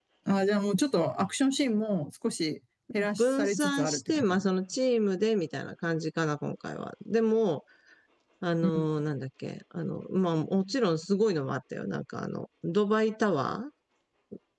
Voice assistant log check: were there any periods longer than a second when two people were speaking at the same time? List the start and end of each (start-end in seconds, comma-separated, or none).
3.2-4.5